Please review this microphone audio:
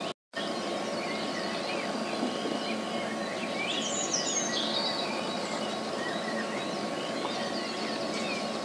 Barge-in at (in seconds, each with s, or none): none